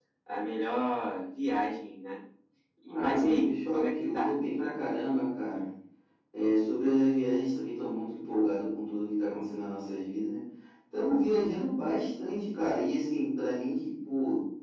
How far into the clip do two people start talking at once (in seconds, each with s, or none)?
2.9 s